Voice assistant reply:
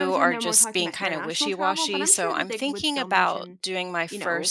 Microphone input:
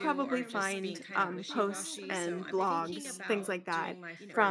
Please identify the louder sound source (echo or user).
user